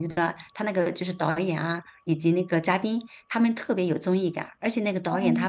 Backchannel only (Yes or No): Yes